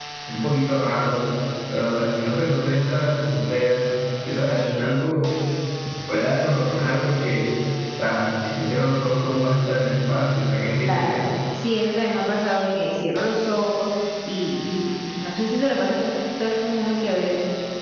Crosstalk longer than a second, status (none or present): none